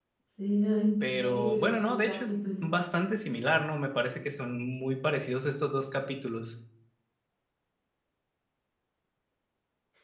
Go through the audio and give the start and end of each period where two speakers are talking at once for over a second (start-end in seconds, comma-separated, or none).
1.1-2.7